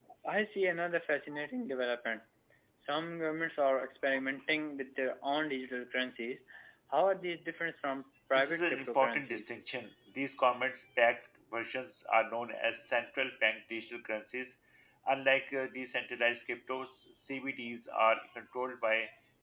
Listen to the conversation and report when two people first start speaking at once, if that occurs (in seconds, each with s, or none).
8.3 s